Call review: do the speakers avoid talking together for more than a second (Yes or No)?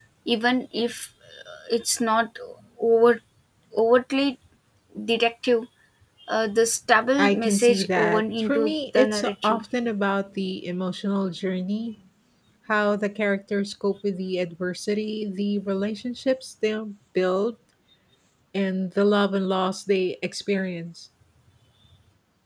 No